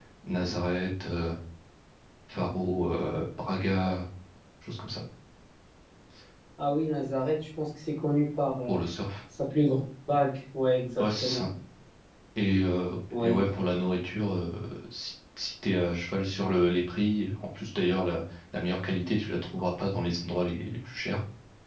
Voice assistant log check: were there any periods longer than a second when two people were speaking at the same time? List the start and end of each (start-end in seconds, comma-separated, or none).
none